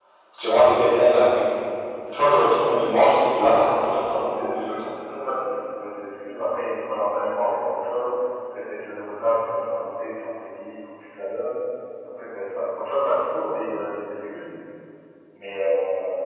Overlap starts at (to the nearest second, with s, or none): 3 s